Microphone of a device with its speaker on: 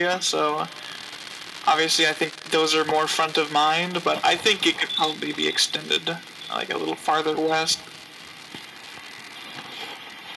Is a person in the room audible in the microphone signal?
No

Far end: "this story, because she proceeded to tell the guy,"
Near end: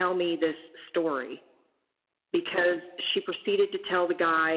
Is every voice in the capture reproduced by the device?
Yes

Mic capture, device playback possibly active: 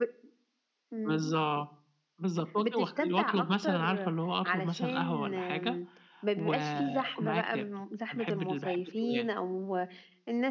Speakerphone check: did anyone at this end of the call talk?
Yes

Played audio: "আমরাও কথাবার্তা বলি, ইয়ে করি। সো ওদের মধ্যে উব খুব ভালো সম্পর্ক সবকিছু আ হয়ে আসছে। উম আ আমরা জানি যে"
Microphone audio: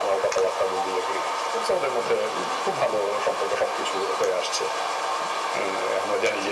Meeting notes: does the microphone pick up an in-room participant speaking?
No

